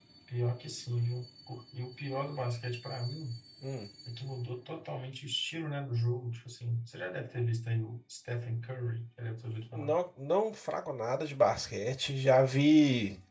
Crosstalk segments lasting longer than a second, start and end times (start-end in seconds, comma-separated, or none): none